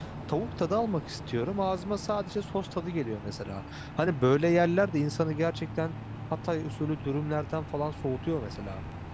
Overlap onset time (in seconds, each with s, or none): none